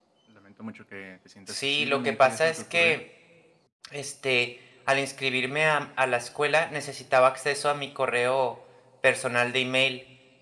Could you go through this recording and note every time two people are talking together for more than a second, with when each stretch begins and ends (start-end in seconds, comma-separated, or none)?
1.5-3.0